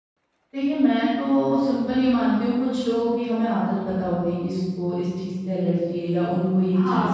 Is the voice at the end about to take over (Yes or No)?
Yes